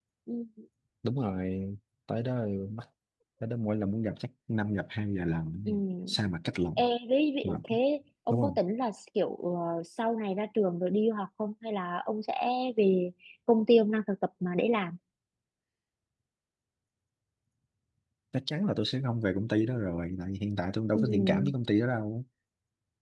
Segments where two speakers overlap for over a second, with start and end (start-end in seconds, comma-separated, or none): none